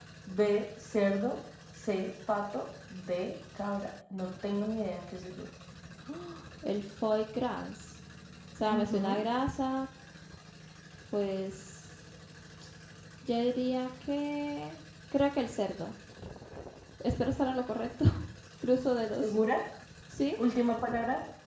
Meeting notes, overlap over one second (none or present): none